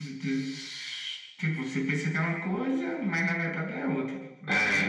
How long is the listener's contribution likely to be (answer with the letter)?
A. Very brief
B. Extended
B